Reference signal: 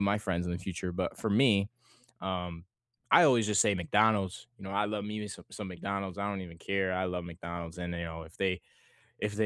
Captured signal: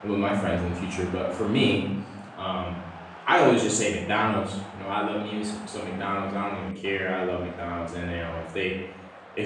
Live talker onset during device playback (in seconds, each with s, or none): none